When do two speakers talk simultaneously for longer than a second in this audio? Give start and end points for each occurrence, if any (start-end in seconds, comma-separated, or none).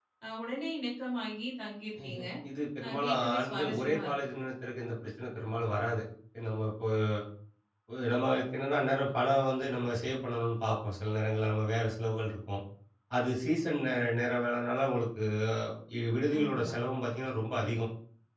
2.8-4.1